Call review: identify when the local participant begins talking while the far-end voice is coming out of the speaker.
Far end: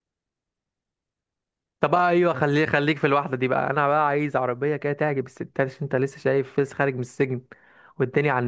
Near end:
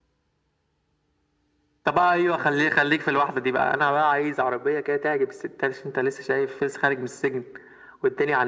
none

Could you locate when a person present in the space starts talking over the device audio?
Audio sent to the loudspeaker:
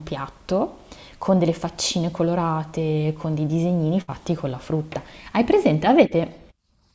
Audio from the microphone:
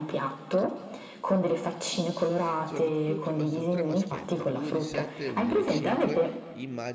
2.6 s

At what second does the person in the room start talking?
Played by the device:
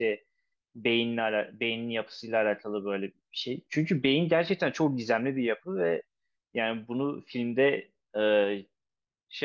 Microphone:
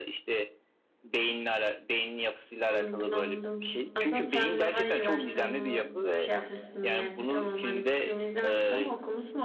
2.7 s

